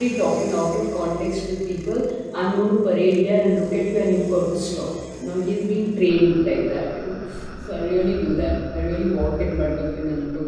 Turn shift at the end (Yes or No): Yes